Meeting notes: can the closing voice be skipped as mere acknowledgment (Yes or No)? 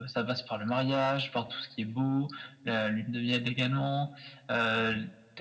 Yes